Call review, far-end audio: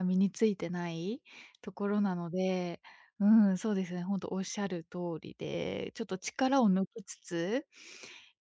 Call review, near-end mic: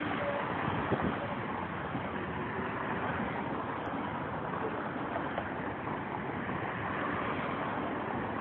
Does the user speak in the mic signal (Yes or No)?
No